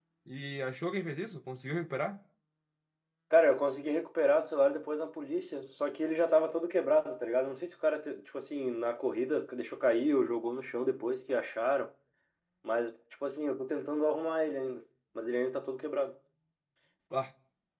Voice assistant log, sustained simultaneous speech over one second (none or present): none